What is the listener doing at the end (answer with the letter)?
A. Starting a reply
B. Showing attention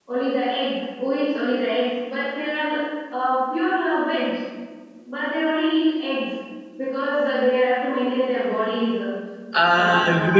A